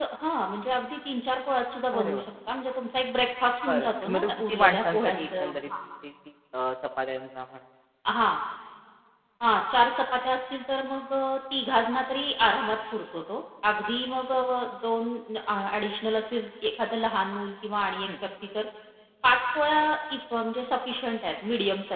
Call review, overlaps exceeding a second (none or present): present